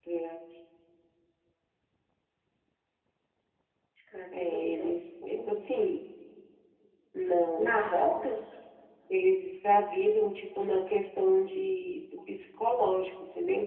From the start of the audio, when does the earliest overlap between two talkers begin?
4 s

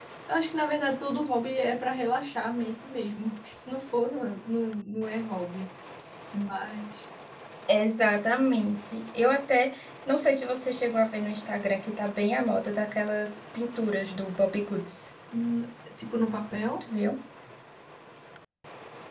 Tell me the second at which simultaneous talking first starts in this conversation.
none

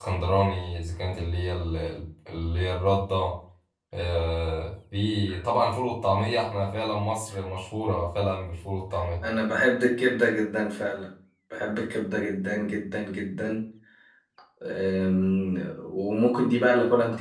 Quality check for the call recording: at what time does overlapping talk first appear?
none

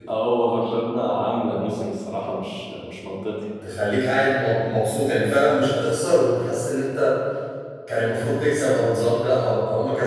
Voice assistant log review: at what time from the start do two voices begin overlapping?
none

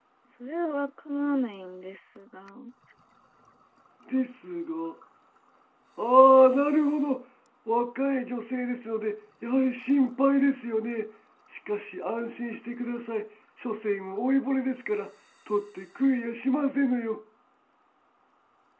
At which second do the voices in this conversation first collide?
none

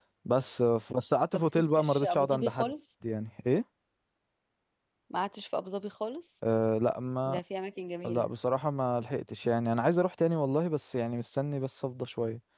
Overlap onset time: 1 s

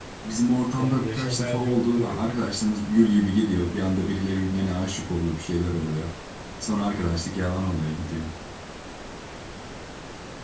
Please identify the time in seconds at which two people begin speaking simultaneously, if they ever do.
1 s

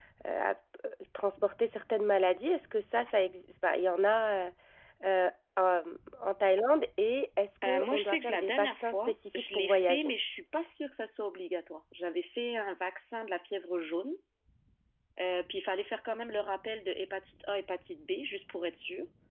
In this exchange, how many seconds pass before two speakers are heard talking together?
8 s

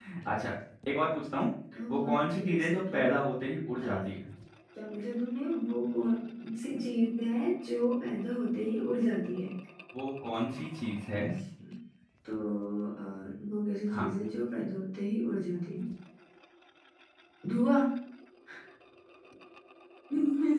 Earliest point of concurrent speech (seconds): 2 s

